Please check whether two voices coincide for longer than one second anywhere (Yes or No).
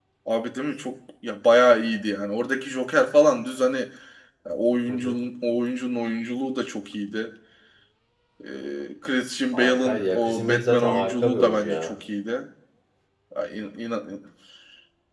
Yes